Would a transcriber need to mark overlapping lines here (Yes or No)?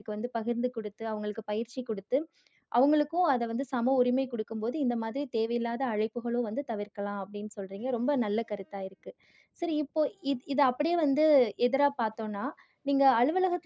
No